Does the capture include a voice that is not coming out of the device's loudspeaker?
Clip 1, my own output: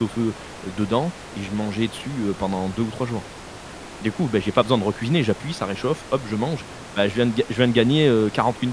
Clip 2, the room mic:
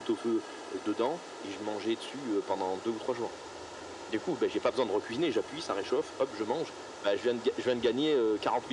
No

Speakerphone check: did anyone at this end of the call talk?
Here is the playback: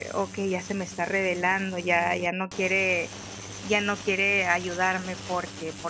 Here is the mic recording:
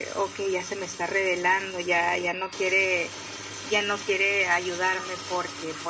No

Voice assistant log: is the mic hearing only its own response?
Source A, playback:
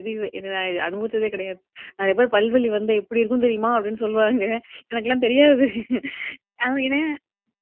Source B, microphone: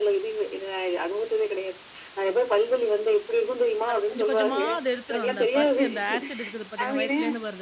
No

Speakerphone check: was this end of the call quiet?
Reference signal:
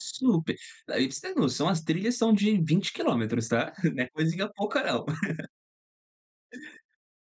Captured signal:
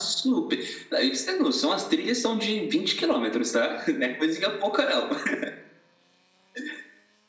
Yes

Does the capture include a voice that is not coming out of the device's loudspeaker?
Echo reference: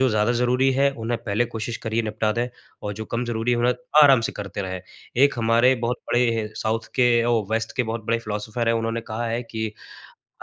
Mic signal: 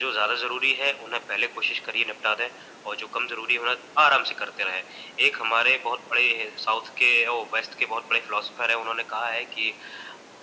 No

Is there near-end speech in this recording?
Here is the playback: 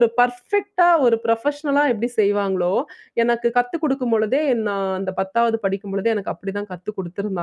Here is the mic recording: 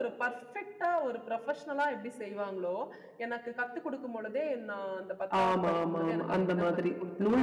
Yes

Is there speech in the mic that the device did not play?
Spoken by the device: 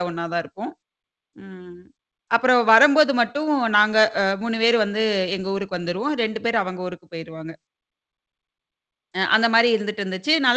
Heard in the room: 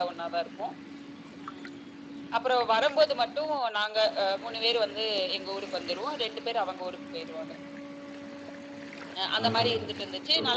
Yes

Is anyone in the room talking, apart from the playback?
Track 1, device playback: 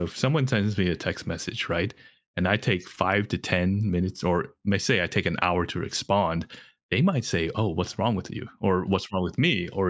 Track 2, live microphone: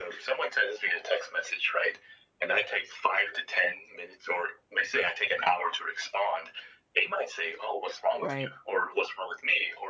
Yes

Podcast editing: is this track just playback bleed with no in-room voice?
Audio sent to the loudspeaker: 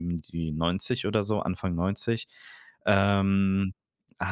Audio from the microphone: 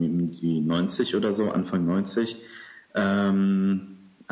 Yes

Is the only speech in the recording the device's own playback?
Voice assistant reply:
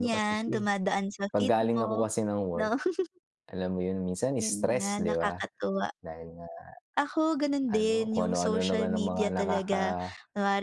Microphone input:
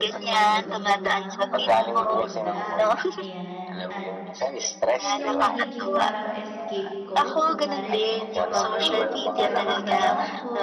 No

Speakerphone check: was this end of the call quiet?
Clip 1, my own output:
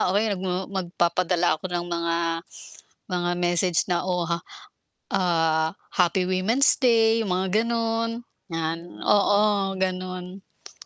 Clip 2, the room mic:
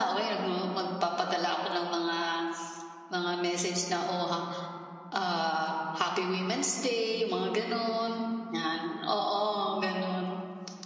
Yes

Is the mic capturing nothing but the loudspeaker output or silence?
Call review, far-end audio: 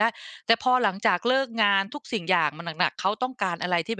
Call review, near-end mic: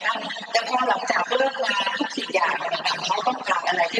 Yes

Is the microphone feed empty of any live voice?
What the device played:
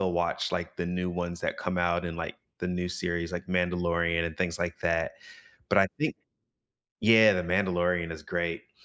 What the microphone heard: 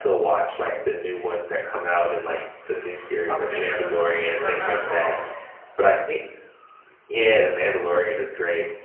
No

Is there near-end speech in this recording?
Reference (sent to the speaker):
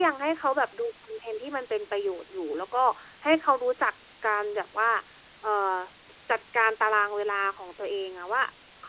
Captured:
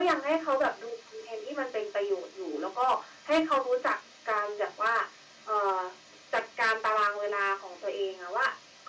No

